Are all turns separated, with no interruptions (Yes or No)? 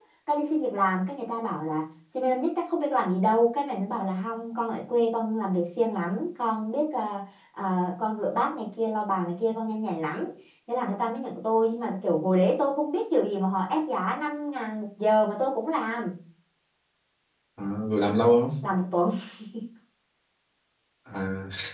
Yes